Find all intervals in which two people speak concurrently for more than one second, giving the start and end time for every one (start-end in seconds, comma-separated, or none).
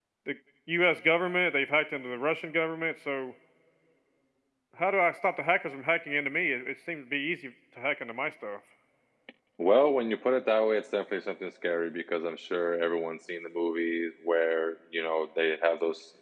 none